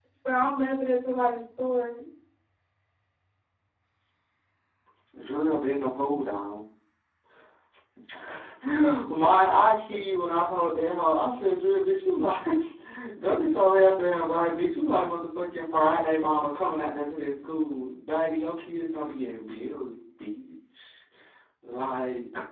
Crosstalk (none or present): none